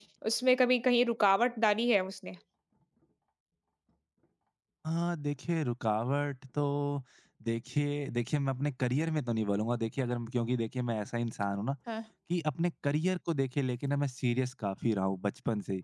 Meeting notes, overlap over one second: none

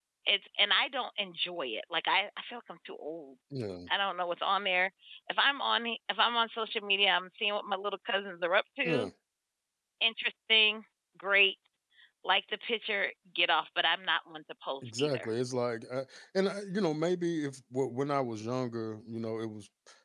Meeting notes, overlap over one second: none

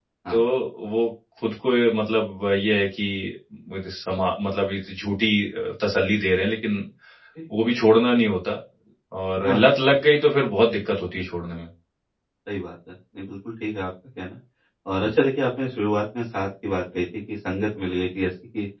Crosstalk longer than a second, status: none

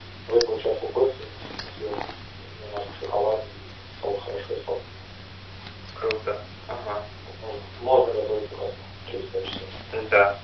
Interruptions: none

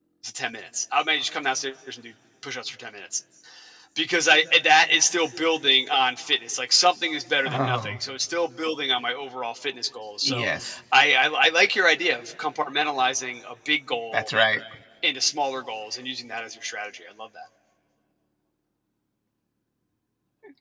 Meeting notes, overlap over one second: none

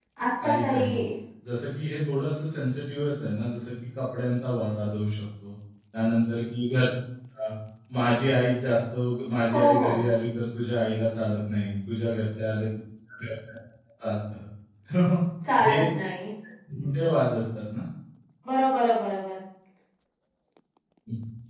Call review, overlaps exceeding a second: none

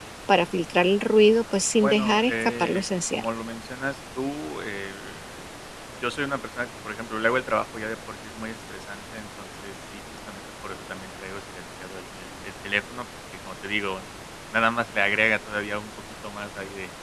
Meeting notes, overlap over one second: present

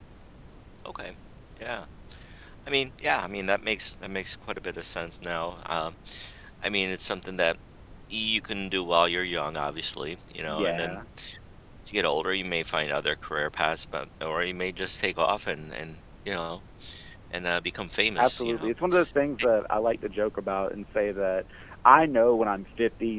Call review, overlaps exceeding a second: none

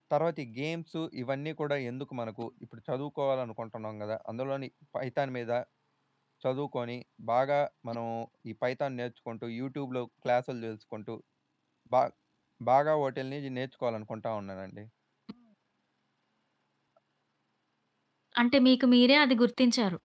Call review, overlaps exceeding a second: none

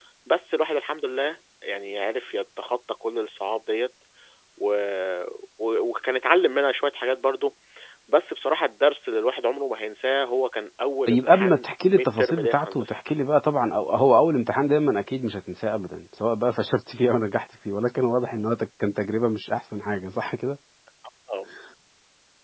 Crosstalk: present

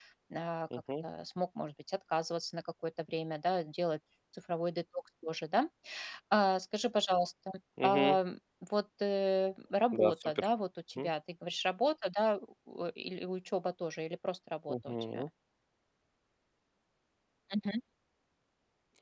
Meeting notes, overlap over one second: none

